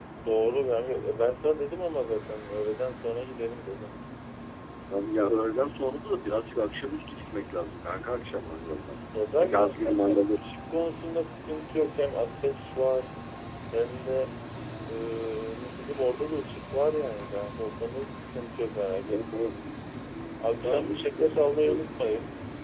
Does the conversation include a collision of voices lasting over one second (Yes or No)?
Yes